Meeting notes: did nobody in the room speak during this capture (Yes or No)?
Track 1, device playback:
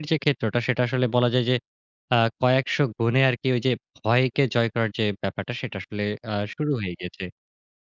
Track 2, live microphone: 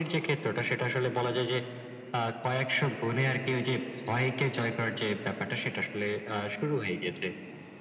Yes